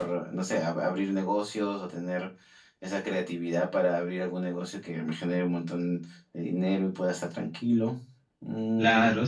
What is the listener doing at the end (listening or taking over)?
taking over